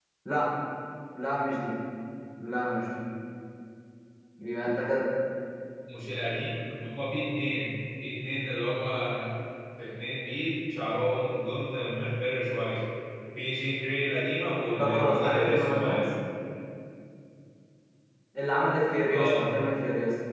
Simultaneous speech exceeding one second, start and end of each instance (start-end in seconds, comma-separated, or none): 14.8-16.0